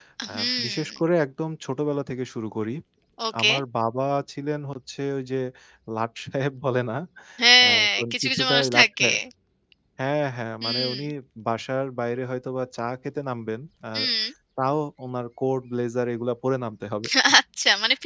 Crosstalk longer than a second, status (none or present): present